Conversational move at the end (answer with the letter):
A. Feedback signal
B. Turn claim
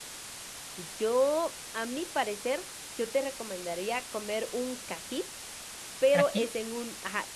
A